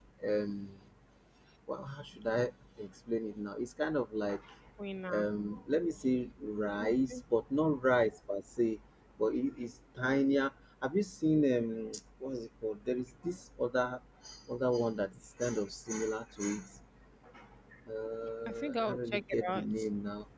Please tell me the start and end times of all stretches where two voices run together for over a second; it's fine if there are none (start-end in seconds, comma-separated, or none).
18.5-19.7